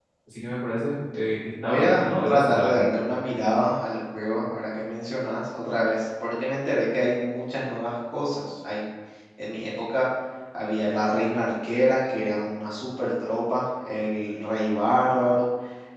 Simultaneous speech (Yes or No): Yes